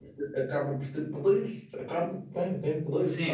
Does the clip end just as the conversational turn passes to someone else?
Yes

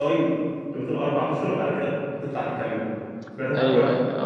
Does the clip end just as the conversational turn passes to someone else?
Yes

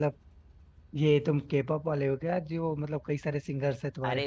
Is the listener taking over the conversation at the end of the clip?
Yes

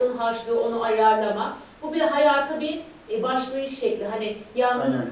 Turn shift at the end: No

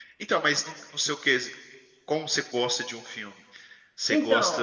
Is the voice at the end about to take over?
No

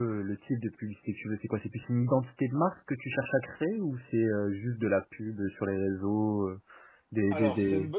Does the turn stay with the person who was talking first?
No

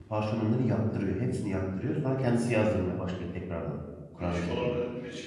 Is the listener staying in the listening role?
No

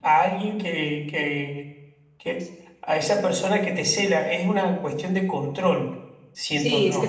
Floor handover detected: Yes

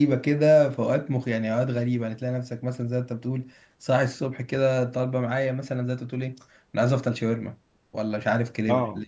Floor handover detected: No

